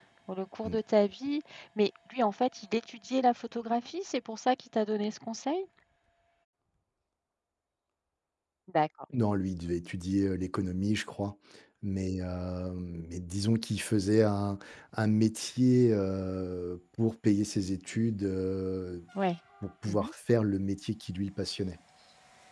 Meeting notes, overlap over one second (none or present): none